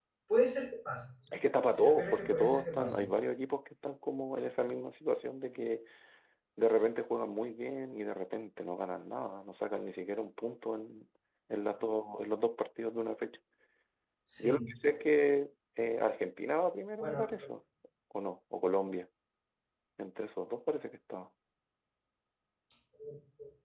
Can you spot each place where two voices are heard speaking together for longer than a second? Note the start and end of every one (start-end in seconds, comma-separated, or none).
1.7-3.1